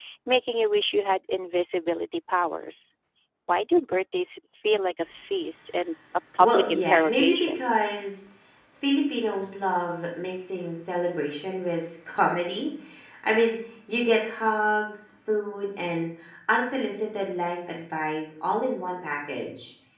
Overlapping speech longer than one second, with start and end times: 6.4-7.7

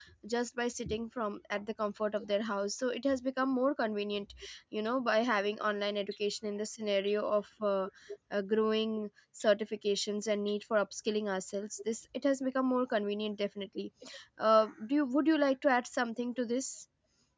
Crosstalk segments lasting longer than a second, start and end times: none

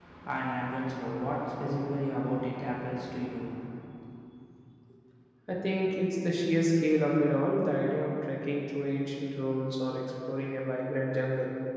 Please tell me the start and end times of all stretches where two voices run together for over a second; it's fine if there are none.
none

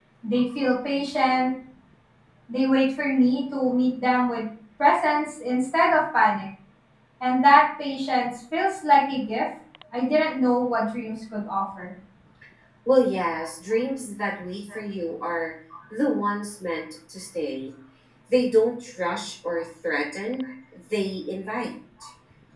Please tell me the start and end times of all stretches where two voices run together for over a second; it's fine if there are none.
none

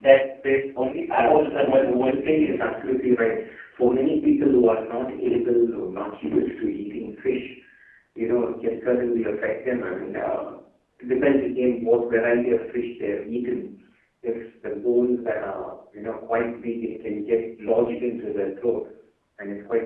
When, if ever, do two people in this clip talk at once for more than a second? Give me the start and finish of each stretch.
1.1-2.6

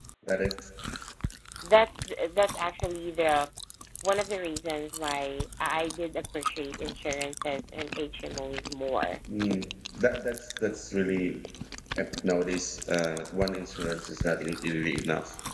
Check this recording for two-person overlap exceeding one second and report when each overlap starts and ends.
none

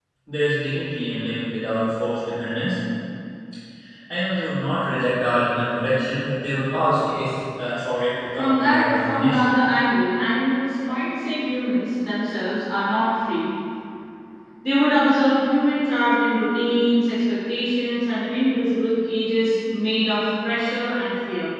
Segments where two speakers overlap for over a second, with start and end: 8.3-9.5

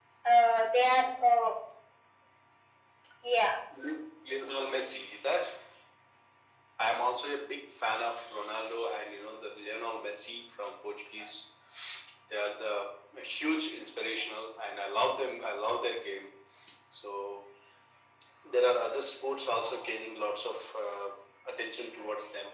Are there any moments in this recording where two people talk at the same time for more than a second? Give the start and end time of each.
none

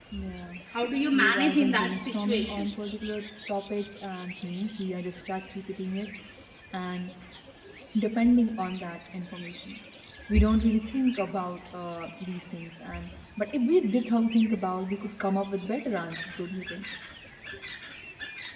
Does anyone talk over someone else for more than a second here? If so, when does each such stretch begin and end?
1.1-2.7

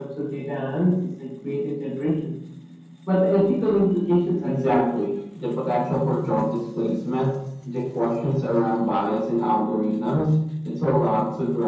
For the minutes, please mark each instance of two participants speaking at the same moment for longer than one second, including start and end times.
none

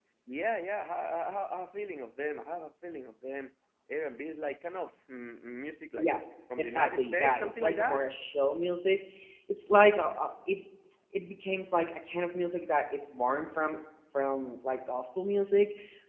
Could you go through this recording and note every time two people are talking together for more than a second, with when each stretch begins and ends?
6.6-8.1

